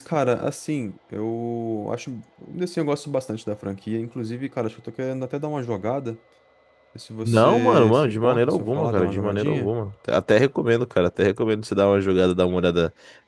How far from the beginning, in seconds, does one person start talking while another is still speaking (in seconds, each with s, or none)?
7.2 s